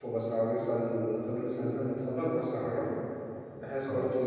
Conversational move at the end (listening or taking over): listening